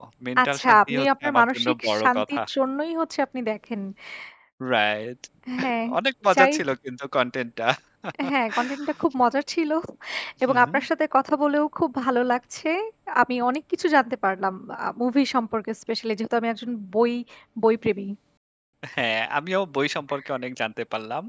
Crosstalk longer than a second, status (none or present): present